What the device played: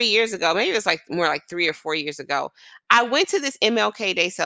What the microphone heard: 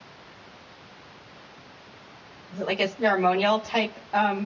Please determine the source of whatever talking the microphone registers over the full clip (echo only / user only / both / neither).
user only